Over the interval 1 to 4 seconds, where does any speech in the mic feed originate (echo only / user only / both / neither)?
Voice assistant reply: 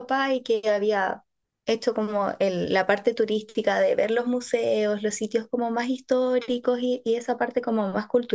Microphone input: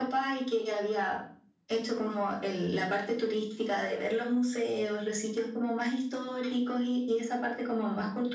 echo only